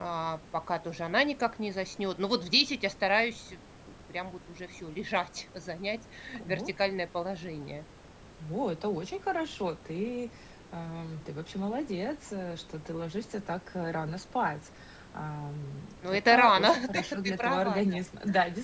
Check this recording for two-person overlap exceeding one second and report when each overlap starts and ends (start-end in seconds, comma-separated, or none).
16.1-18.0